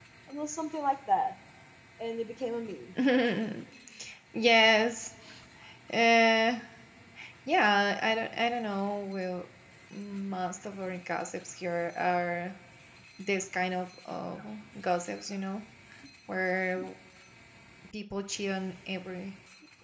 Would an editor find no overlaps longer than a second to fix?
Yes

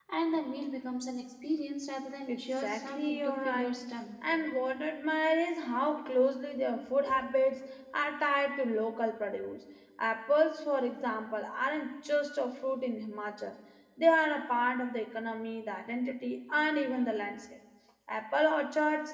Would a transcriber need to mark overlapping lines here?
Yes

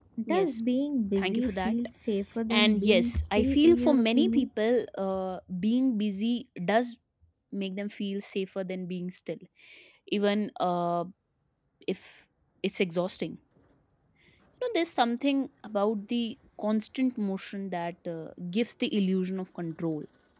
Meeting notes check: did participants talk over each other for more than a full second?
Yes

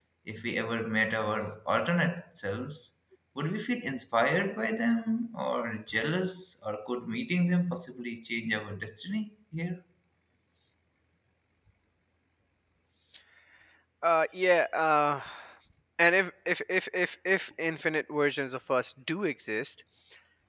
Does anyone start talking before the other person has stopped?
No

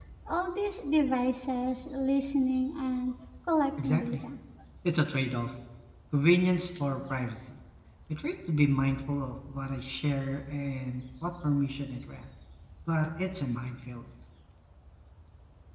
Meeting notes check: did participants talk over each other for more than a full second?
No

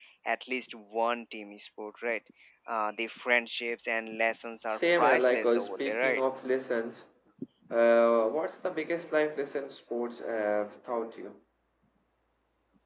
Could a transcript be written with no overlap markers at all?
No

